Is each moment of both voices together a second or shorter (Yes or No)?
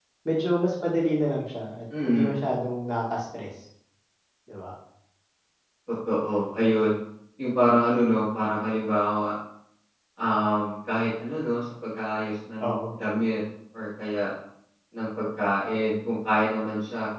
Yes